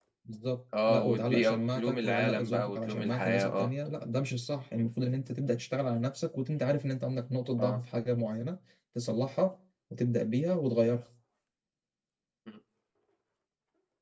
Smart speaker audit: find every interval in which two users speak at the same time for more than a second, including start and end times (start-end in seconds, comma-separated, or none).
0.9-3.7